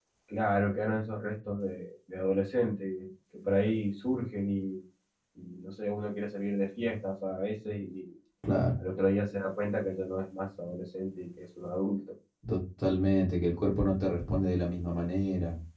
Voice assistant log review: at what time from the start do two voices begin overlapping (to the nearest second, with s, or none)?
none